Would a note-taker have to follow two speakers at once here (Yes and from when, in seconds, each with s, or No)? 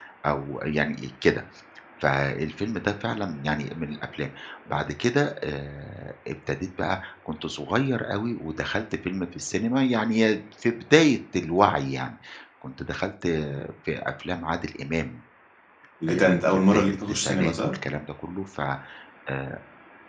Yes, from 16.1 s